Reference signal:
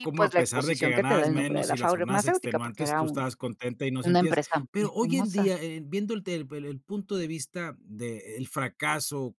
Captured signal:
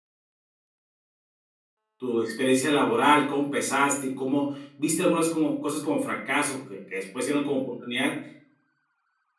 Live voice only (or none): tu experiencia laboral, cómo empezaste y cómo, viste algunas como cosas como fracaso que que después se hicieron como oportunidad.